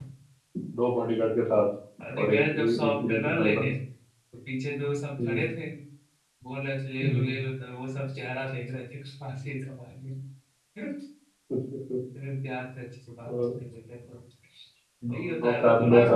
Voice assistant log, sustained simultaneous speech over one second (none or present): present